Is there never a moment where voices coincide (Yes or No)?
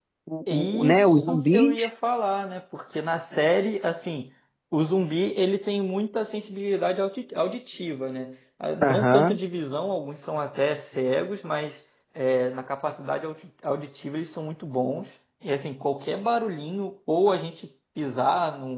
No